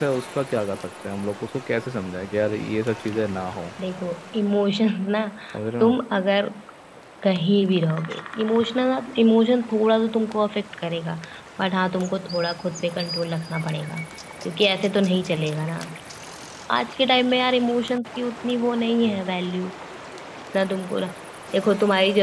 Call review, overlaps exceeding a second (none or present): none